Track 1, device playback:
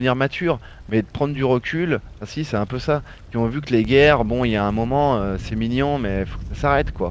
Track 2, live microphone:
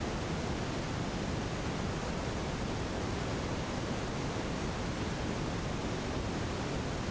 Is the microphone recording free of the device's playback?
Yes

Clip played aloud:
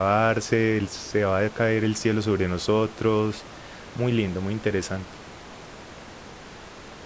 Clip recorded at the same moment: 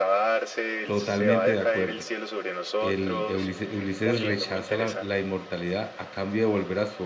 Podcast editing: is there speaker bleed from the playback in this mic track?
Yes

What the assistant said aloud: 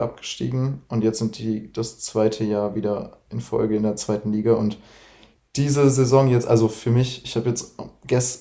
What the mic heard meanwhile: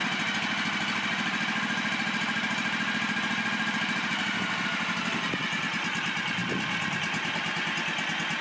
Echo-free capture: Yes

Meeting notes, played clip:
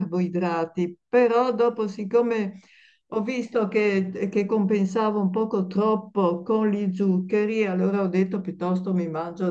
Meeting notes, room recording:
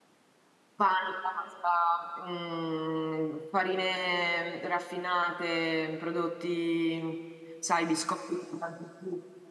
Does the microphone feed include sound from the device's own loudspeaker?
No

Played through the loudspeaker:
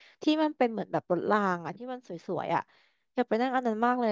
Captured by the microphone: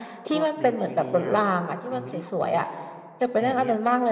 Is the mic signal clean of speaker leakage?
No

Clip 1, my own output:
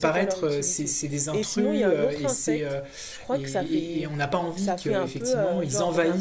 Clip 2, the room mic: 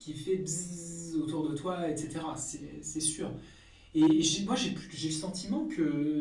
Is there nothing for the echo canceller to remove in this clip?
Yes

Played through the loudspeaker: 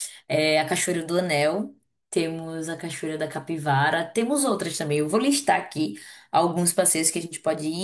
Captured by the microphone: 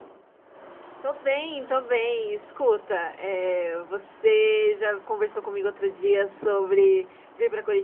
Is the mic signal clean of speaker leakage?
Yes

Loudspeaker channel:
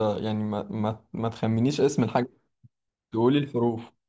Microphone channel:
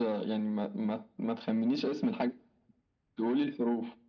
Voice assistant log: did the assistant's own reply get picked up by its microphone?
Yes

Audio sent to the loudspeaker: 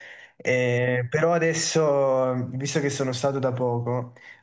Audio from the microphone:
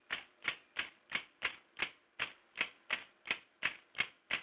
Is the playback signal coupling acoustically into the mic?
No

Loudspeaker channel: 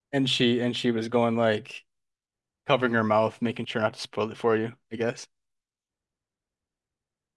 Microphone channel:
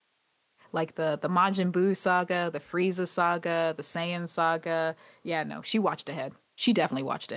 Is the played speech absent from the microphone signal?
Yes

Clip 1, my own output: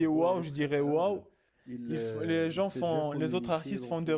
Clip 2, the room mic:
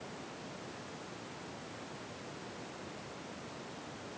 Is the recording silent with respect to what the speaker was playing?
Yes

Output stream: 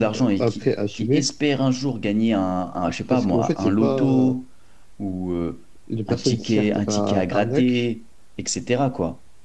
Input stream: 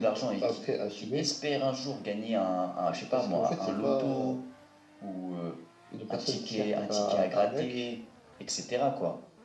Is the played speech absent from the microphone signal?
No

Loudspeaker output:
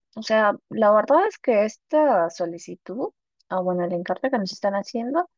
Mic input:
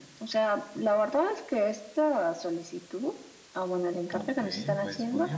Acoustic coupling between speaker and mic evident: Yes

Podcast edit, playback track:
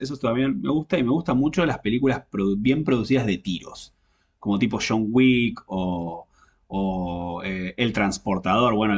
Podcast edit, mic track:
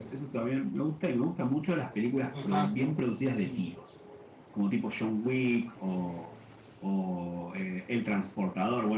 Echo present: Yes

